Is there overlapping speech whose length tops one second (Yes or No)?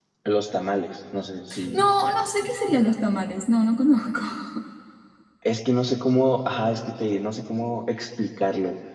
No